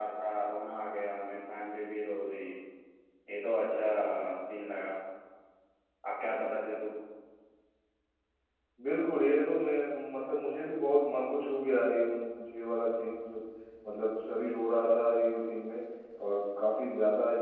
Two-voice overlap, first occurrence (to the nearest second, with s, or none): none